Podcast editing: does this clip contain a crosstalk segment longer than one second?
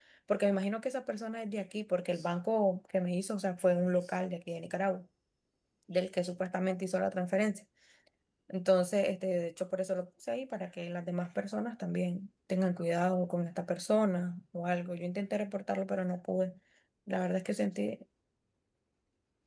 No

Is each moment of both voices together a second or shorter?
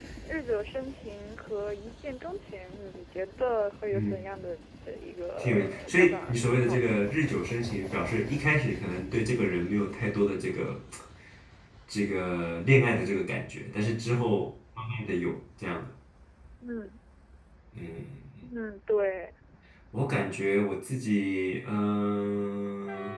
No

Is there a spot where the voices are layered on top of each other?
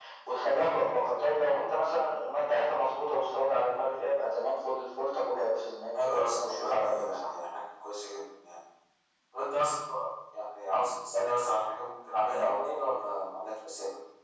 Yes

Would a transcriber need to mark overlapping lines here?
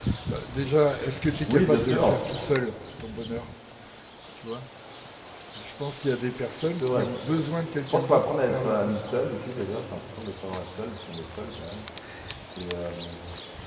Yes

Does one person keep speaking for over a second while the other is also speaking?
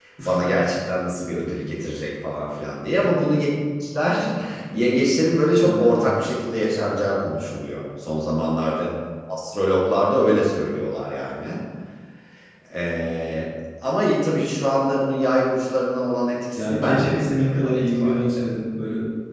Yes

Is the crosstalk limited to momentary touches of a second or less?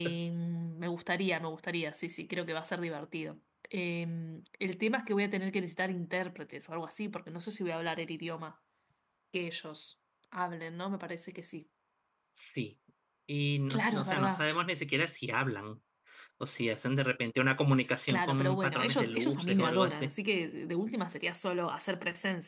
No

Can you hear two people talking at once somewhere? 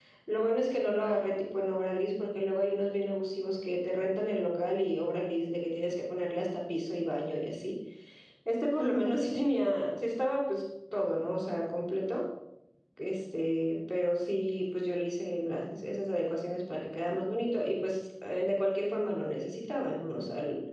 No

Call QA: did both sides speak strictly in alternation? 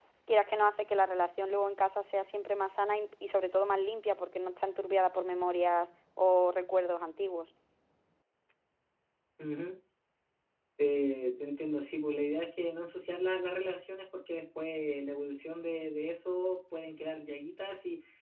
Yes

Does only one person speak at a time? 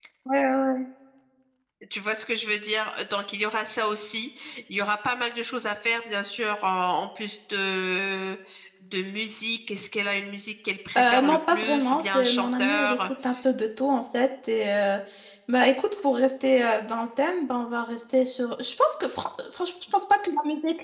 No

